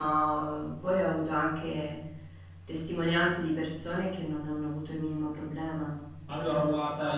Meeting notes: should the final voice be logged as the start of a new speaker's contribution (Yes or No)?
Yes